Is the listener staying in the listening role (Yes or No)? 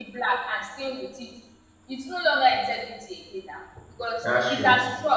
Yes